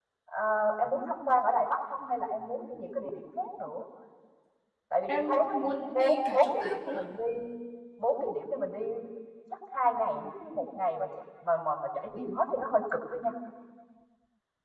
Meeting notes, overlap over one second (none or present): present